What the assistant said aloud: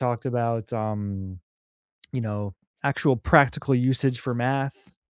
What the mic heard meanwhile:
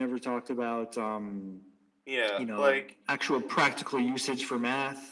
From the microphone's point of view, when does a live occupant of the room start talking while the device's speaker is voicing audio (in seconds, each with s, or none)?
2.0 s